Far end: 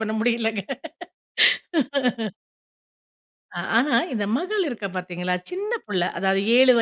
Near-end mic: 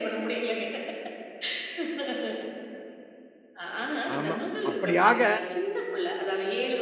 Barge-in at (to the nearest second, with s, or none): 4 s